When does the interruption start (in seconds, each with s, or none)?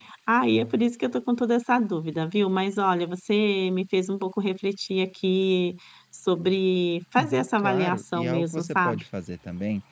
7.2 s